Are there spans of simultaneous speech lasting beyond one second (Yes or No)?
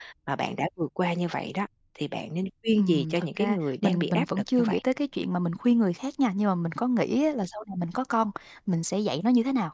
Yes